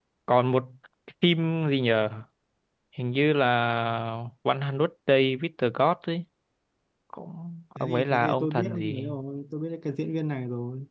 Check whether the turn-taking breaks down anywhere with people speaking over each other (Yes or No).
Yes